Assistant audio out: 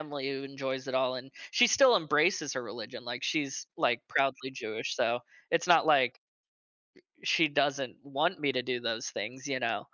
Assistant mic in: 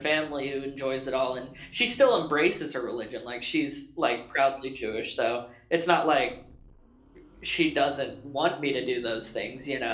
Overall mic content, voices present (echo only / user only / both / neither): echo only